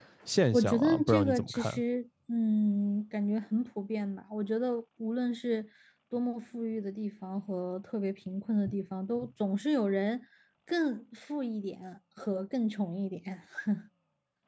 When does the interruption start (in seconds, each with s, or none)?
0.5 s